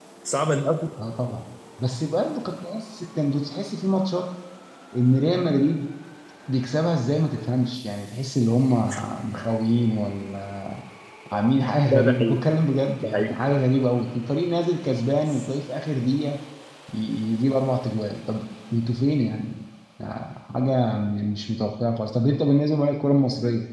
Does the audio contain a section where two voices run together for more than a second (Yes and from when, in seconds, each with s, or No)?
No